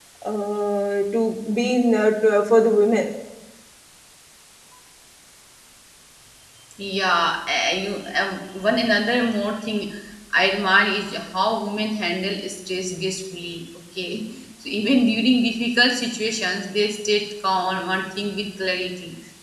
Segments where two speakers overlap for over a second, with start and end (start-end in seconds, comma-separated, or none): none